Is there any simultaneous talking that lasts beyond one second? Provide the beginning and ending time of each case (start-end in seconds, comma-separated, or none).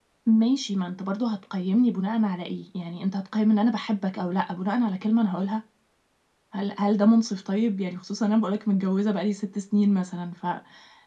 none